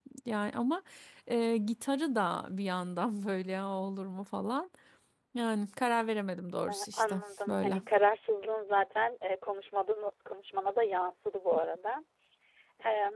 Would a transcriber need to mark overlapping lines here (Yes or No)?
Yes